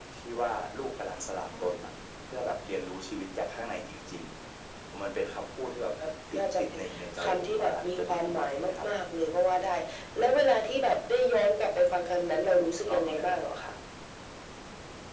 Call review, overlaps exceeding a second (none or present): present